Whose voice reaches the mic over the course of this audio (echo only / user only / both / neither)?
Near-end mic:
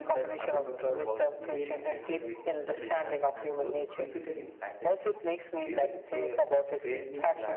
both